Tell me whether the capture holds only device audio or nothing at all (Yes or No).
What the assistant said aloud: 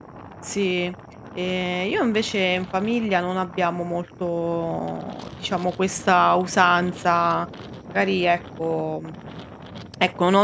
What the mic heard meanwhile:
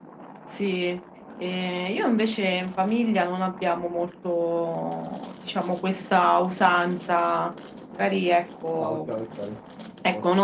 No